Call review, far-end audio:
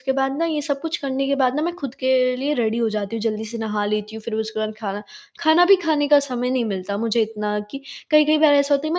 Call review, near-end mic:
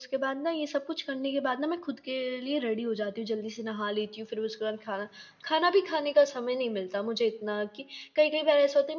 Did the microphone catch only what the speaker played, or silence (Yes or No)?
Yes